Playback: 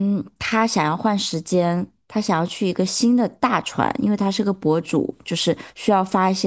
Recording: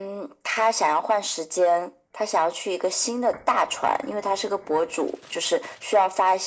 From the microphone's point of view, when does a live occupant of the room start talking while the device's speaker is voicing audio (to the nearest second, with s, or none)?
none